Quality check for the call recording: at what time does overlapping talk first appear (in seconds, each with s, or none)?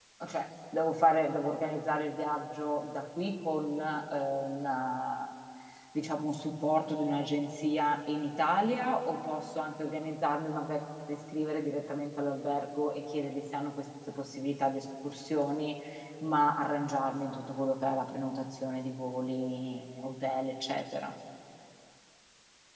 none